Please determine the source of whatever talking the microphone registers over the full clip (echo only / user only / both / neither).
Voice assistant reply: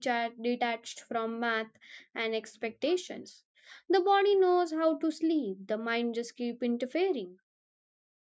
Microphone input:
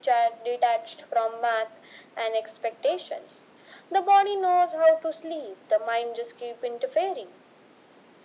echo only